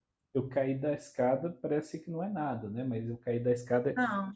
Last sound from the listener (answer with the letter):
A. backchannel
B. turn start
B